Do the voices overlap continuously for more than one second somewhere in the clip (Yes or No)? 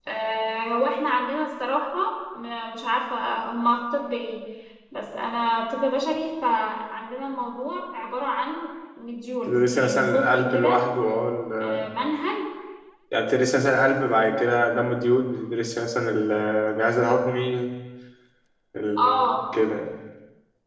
Yes